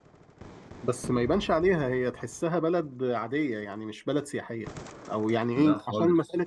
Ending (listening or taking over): listening